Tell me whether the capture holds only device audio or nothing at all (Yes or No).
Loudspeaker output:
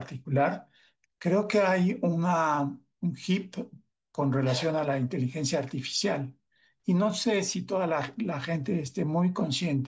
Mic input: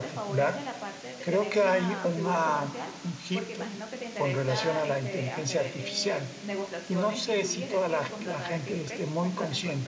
No